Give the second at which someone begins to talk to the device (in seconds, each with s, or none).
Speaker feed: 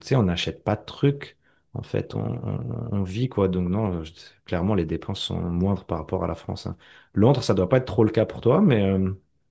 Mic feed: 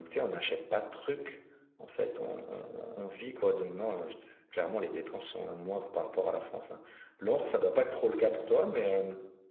none